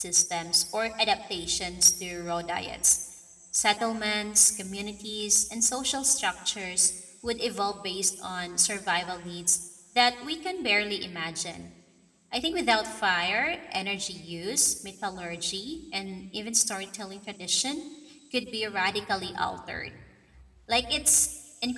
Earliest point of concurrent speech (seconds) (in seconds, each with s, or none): none